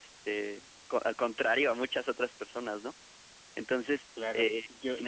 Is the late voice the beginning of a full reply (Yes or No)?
Yes